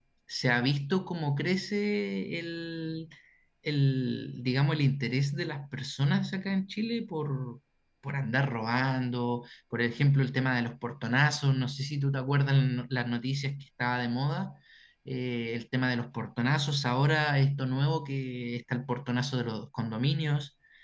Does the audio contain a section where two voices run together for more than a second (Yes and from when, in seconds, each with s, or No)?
No